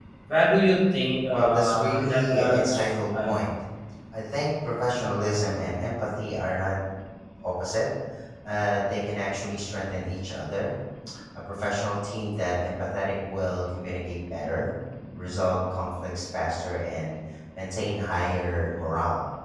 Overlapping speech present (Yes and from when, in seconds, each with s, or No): Yes, from 1.3 s